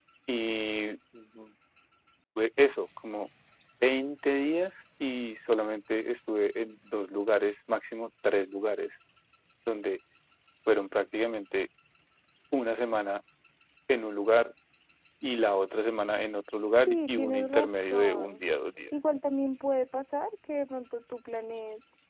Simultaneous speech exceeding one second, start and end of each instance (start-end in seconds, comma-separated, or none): 16.9-18.4